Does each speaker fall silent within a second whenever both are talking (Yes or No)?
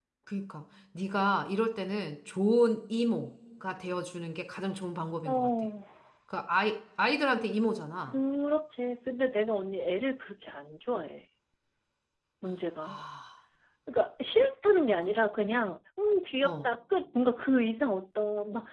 Yes